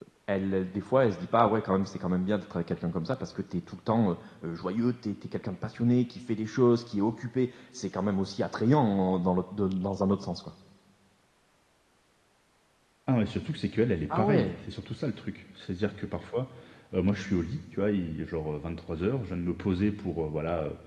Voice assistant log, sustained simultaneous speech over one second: none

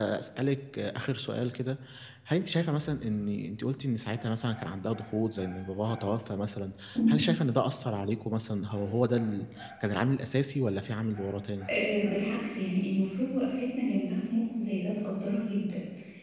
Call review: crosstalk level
none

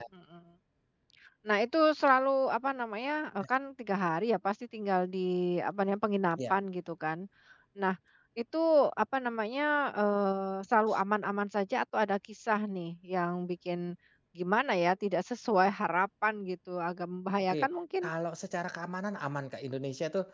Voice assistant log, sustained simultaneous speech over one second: none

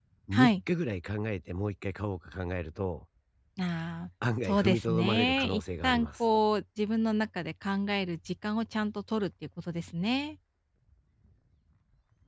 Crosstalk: present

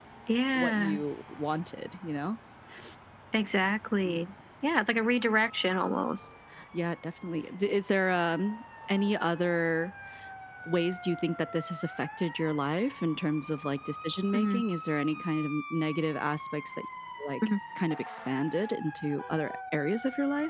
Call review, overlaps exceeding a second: none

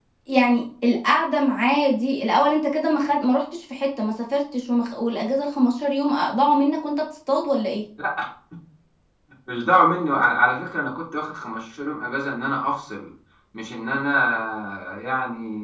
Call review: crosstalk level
none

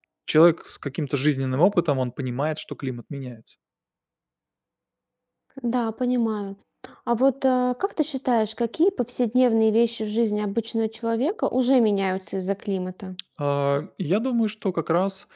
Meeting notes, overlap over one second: none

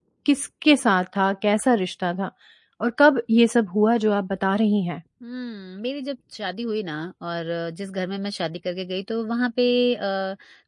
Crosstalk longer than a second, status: none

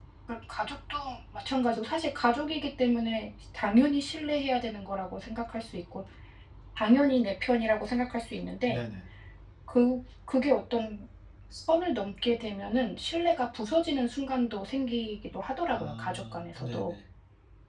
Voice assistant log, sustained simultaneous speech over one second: present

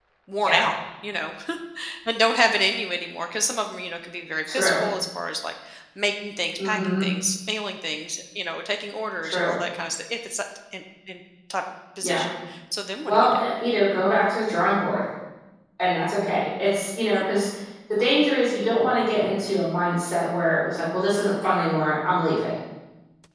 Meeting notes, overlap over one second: none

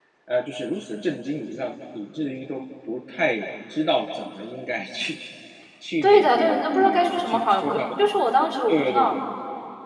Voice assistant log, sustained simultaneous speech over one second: present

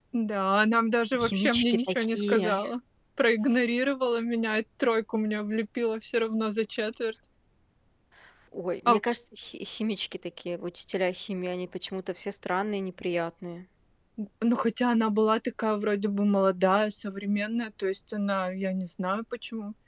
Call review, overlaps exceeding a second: present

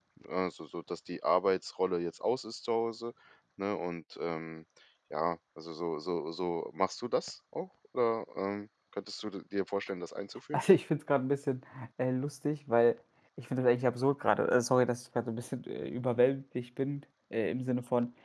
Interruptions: none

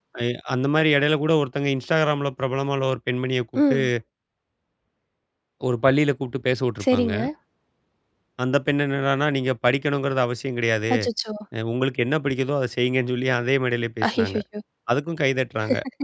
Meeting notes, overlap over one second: none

